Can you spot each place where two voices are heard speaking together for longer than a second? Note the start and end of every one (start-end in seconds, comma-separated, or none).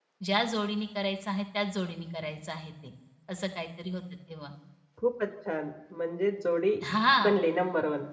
none